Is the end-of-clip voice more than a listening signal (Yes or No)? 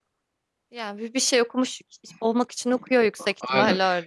Yes